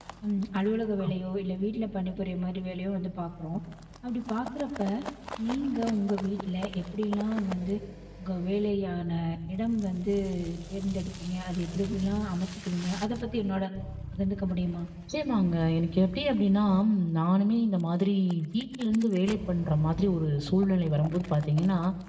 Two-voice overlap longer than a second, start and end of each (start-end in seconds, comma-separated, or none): none